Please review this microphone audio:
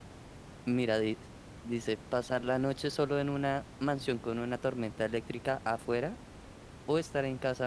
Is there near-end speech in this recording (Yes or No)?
Yes